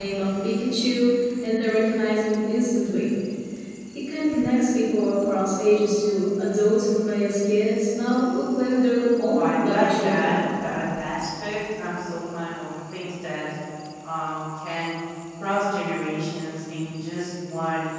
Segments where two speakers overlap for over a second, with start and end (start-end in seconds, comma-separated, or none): 9.2-10.5